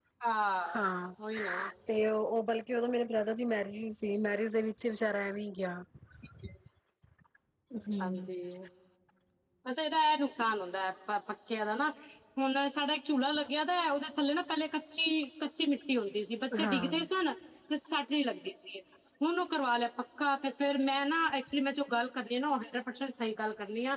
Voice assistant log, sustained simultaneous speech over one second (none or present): none